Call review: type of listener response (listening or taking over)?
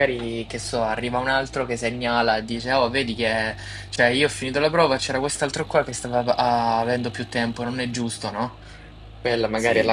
listening